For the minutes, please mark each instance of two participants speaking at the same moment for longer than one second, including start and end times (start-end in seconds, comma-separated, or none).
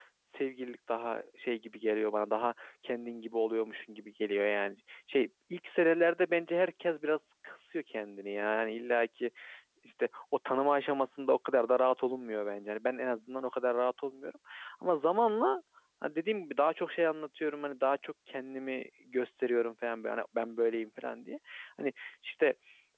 none